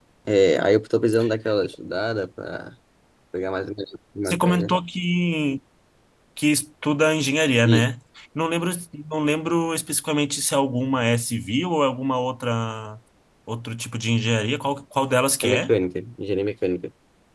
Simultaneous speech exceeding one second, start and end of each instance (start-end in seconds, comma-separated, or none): none